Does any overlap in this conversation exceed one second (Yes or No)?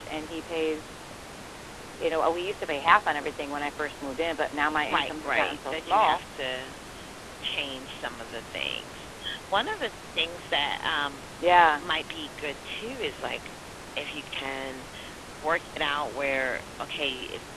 Yes